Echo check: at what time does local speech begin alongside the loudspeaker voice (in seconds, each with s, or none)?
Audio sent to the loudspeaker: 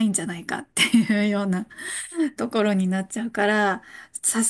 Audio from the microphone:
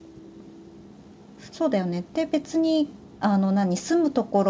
1.5 s